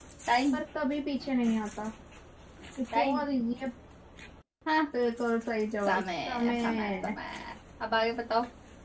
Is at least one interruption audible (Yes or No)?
Yes